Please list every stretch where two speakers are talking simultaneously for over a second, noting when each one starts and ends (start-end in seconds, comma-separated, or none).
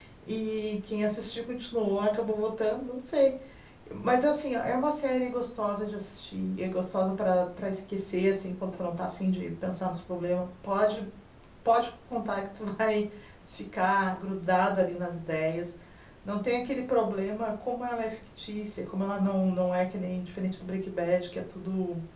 none